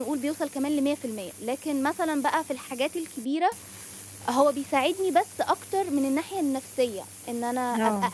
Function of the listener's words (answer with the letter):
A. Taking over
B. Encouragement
B